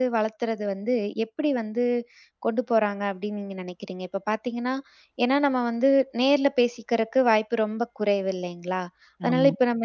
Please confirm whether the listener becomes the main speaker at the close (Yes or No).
No